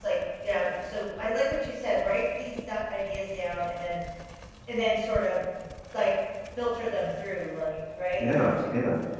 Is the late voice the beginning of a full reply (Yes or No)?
Yes